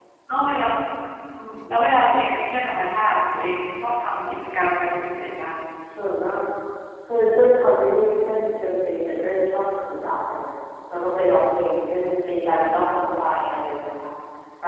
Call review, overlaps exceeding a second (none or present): none